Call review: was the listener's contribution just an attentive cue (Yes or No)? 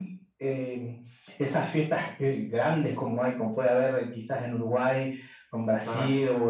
Yes